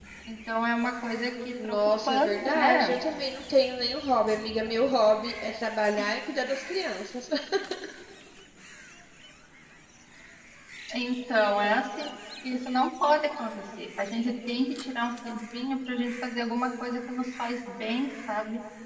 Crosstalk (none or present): present